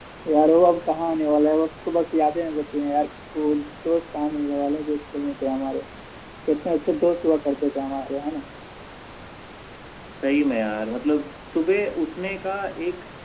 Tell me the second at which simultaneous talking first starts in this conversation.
none

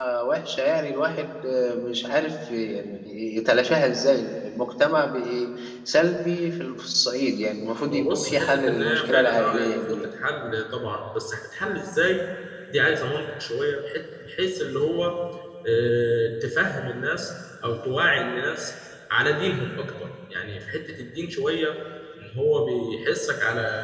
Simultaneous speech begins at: 7.9 s

